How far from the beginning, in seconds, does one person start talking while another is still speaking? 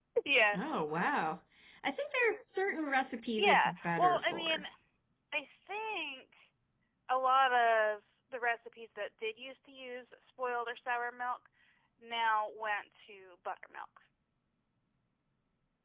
3.4 s

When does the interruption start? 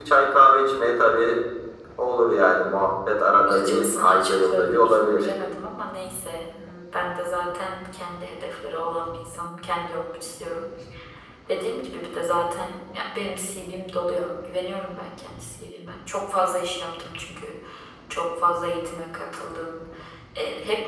3.5 s

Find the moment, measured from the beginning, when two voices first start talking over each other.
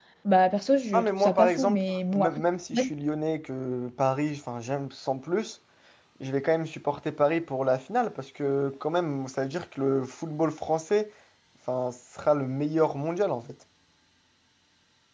0.9 s

